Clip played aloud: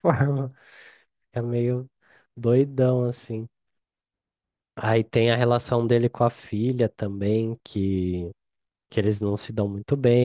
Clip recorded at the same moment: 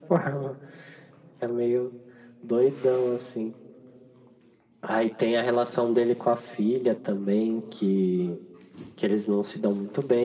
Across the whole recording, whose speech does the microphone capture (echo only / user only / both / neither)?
echo only